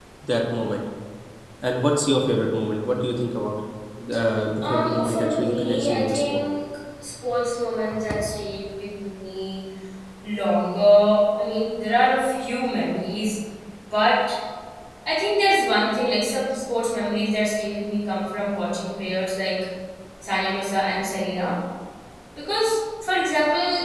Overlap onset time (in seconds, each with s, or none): 4.7 s